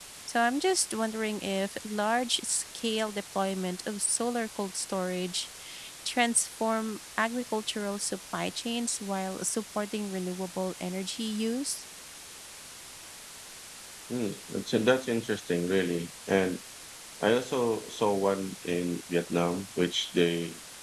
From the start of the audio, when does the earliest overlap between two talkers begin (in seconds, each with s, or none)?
none